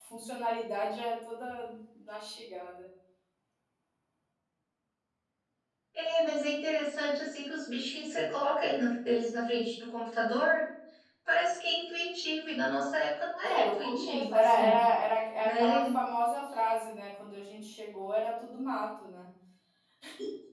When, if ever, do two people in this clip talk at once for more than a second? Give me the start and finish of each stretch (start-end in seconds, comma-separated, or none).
13.5-14.8